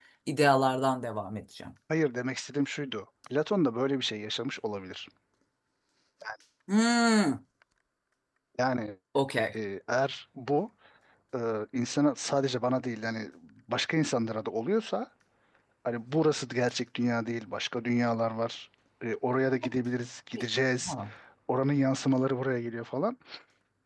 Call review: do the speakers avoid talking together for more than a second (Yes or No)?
Yes